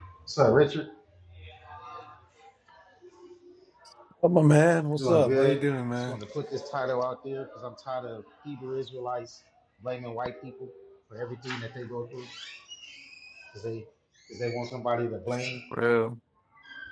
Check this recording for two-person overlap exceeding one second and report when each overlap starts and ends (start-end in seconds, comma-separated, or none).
5.0-6.2